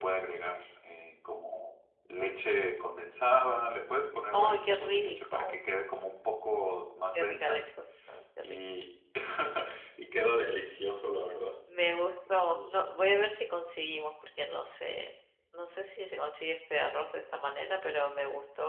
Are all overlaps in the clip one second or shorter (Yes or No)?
No